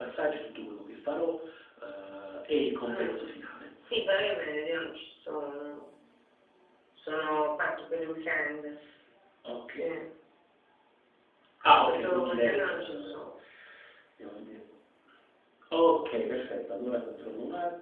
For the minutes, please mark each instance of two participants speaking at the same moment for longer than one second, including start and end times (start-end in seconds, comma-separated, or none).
11.9-13.2